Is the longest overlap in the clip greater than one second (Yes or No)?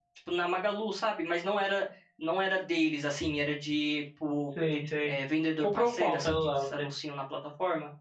Yes